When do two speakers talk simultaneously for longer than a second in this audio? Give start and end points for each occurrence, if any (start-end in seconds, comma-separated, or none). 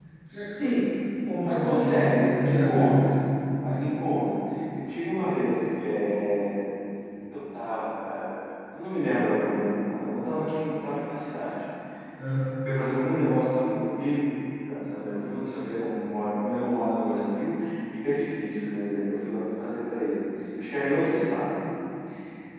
1.4-3.1